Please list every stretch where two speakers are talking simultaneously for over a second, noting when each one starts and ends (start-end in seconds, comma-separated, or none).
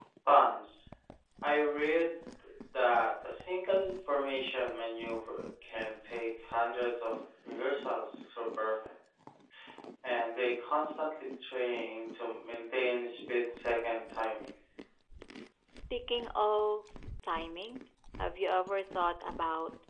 none